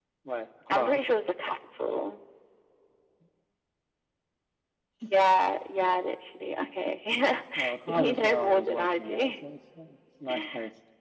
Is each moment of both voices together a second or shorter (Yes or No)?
No